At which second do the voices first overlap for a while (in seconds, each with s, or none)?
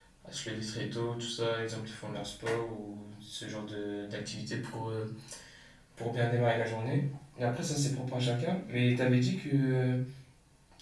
none